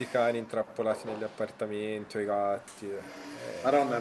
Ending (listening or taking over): taking over